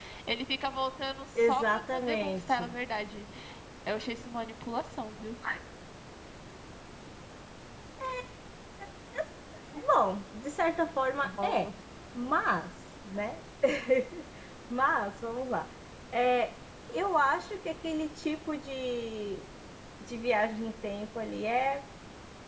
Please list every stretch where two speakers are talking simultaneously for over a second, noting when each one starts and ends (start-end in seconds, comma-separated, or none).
1.5-2.8